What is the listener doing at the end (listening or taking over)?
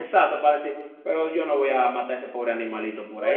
taking over